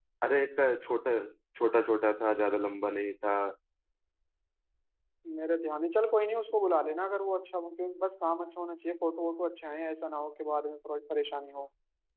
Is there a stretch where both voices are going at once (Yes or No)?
No